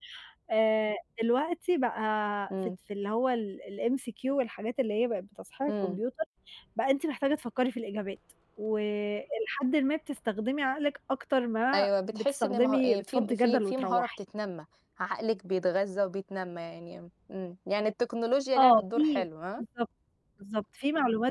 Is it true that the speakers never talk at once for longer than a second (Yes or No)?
No